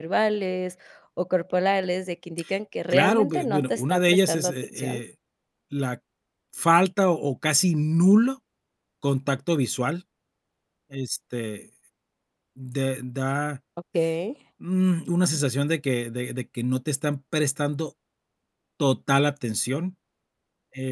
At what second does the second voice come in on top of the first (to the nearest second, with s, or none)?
3 s